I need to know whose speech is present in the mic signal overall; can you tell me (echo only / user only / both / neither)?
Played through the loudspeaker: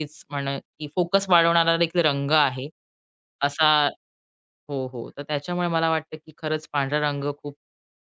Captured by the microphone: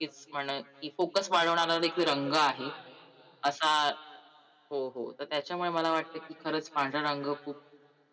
both